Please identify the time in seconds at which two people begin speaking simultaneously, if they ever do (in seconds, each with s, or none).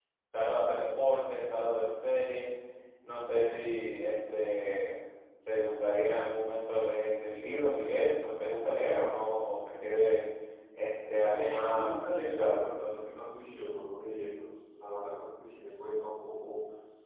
11.3 s